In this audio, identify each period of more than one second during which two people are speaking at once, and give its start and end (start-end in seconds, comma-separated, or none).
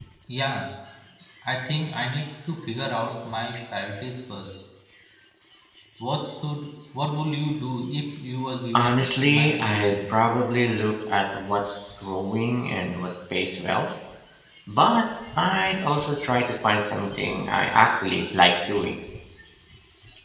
8.7-10.0